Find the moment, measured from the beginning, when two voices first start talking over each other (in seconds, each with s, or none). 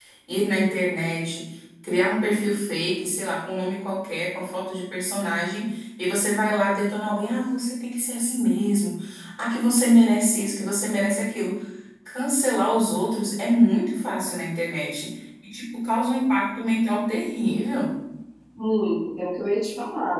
none